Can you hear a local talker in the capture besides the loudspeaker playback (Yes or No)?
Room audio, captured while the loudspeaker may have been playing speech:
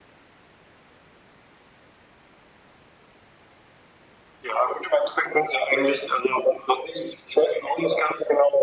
No